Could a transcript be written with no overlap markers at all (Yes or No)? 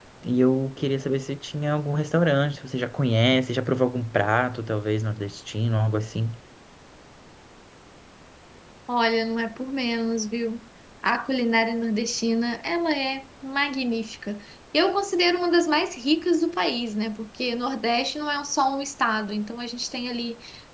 Yes